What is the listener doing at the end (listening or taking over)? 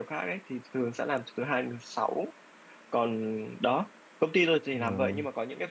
listening